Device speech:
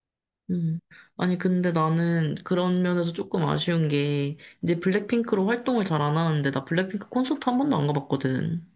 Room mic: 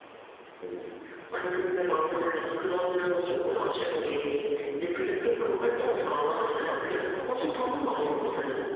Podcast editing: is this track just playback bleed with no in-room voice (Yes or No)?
No